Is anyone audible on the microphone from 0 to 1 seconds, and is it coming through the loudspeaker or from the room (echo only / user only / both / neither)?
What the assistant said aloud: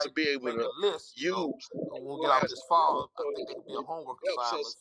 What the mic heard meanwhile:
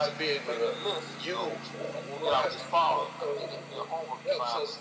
echo only